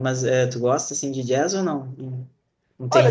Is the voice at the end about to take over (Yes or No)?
Yes